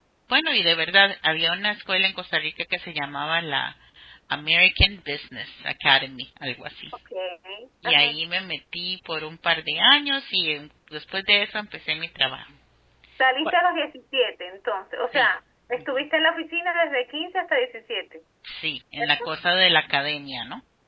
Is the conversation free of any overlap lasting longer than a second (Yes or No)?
Yes